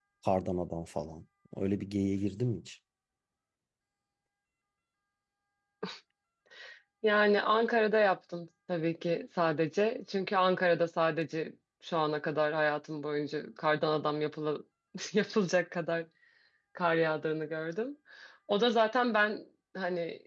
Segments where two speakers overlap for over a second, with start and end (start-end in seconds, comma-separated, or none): none